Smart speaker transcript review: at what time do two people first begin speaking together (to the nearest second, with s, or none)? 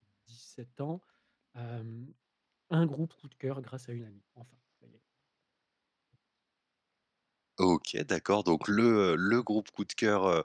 none